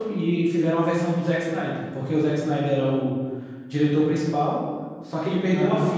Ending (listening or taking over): listening